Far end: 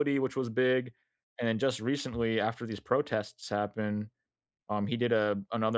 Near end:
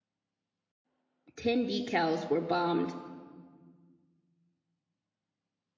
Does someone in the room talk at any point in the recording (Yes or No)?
Yes